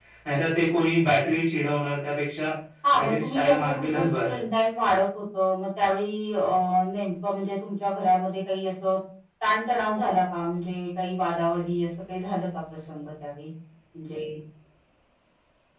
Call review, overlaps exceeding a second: present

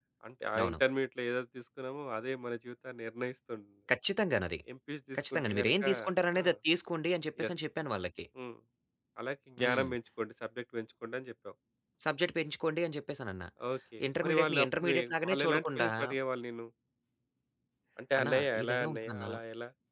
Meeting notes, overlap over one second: present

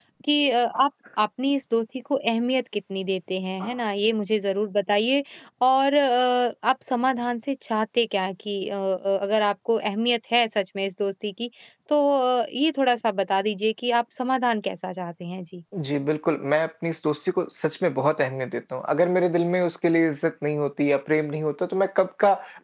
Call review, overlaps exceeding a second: none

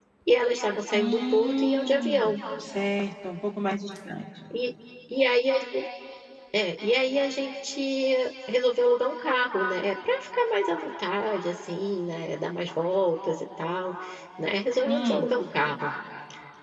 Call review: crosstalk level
present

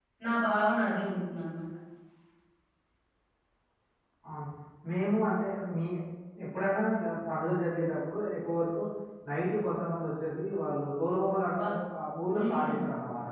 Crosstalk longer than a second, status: none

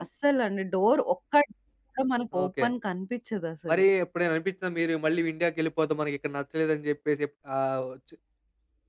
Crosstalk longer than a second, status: none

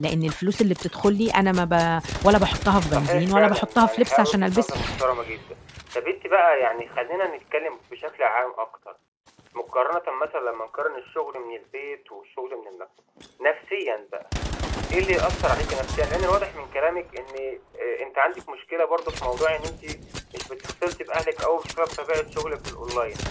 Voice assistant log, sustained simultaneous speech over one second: present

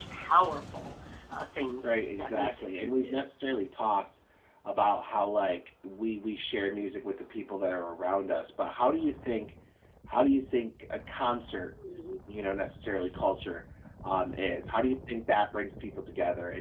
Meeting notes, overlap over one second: present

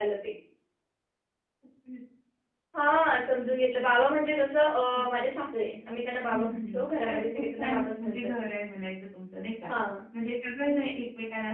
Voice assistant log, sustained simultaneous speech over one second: present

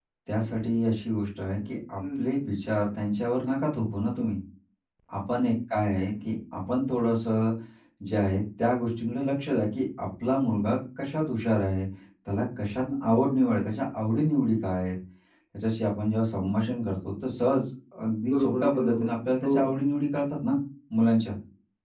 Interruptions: present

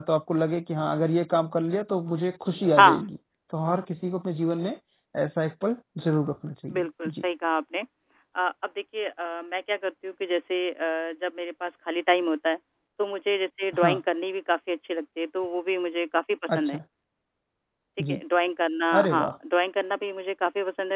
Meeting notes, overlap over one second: none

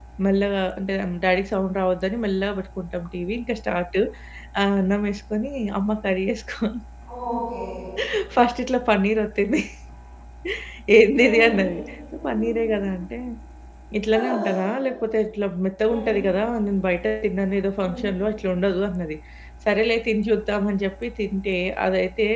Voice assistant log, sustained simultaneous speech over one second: none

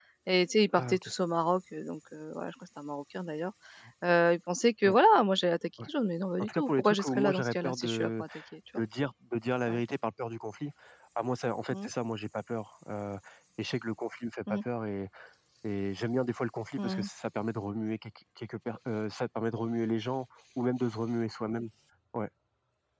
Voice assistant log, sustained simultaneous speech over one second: present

